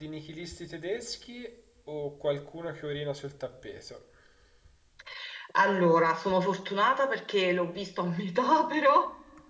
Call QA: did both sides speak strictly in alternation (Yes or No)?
Yes